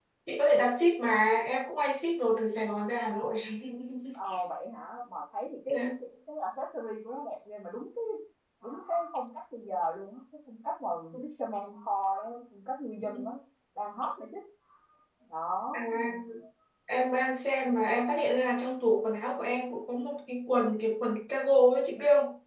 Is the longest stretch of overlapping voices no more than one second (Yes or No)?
Yes